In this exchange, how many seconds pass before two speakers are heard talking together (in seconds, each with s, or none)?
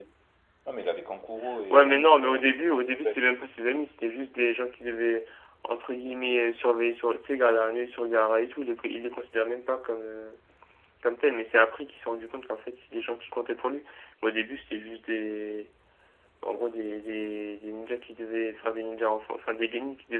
1.7 s